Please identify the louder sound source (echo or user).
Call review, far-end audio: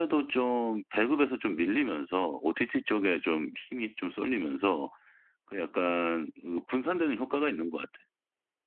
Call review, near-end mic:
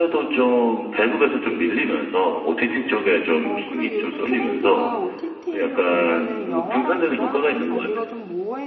echo